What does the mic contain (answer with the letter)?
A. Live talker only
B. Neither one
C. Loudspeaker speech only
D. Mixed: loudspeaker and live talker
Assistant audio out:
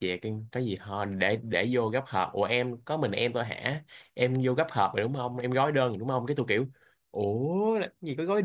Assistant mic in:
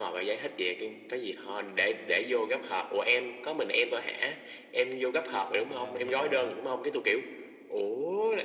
D